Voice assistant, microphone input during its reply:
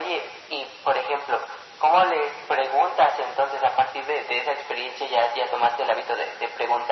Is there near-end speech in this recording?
No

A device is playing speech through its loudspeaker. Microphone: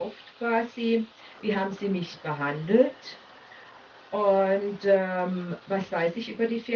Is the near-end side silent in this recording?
No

